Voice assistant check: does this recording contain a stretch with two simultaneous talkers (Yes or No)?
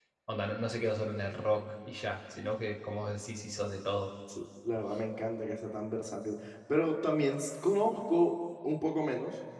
No